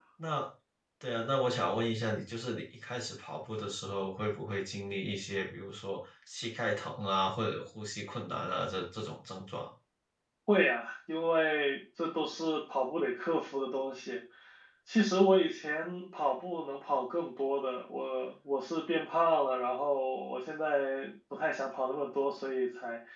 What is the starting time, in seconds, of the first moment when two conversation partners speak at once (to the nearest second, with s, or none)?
none